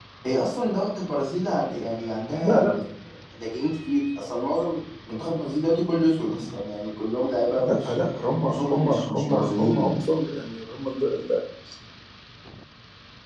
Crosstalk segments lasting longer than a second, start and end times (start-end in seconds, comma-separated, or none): 8.5-9.9